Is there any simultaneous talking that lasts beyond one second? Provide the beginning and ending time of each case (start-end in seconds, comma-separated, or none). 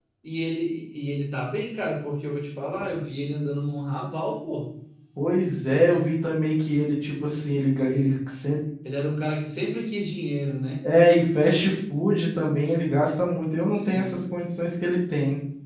none